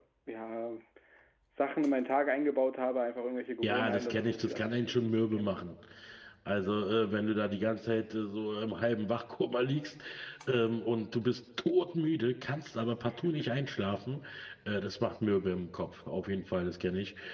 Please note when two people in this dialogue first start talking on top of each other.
3.6 s

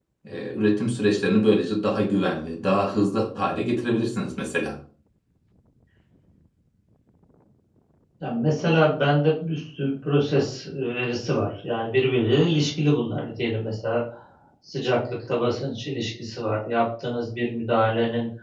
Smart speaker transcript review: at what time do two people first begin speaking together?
none

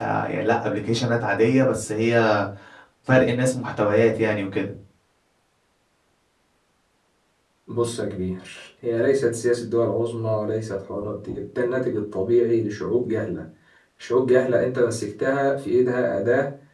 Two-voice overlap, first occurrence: none

